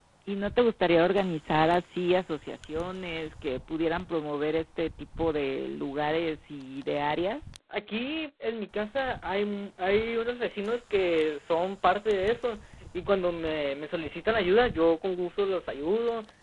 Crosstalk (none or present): none